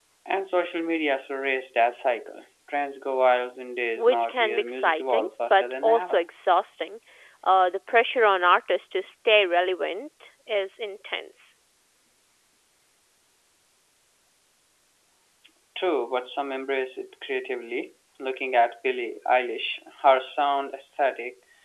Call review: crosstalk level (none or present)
present